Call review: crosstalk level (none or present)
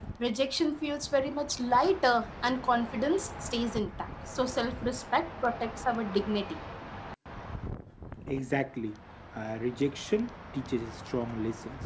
none